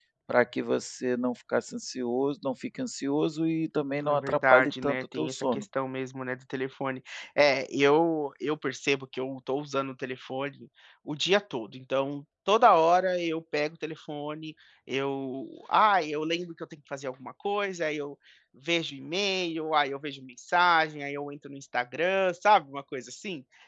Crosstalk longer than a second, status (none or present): present